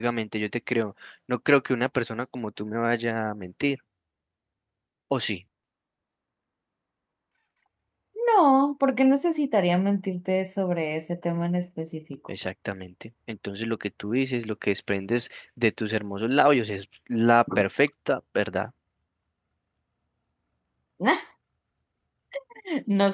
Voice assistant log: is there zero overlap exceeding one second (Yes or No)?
Yes